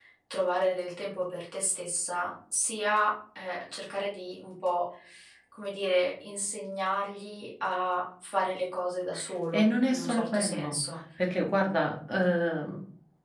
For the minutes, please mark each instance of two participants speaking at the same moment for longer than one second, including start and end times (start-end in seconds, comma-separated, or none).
9.5-10.8